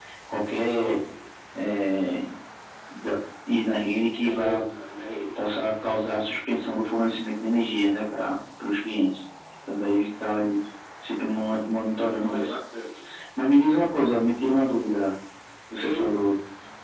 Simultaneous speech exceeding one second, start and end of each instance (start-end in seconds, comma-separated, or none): none